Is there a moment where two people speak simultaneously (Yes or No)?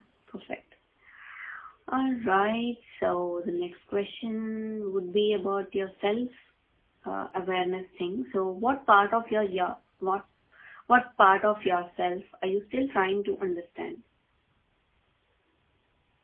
No